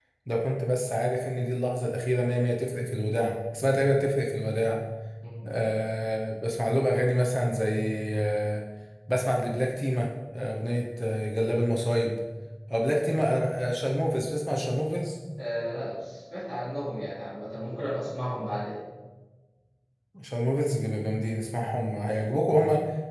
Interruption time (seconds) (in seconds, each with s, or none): none